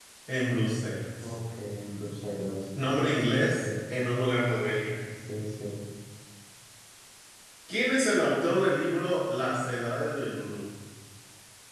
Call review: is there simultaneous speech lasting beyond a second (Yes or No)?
No